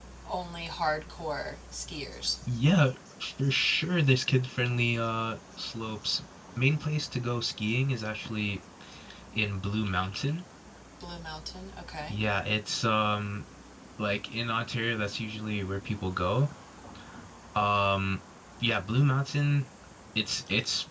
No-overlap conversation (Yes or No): Yes